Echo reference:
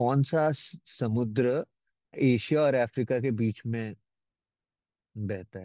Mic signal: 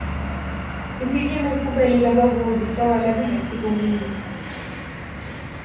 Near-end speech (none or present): present